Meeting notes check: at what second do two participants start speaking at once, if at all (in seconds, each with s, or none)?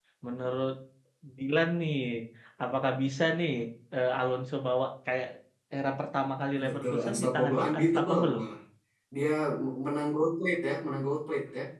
6.6 s